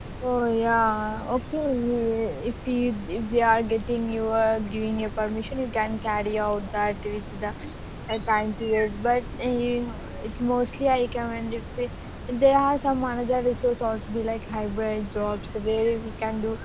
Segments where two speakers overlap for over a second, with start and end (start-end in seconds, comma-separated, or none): none